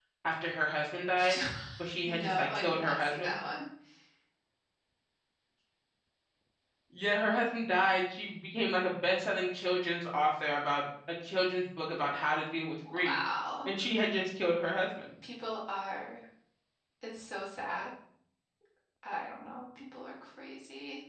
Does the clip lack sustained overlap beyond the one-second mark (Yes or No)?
No